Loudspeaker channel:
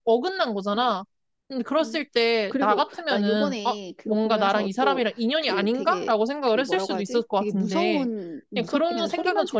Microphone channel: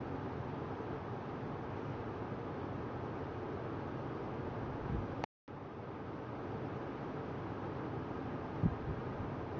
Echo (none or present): none